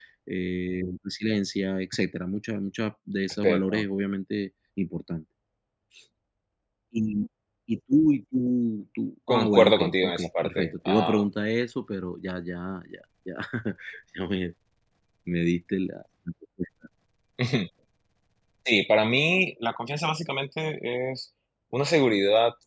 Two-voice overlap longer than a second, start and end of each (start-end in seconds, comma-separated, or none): 9.3-11.2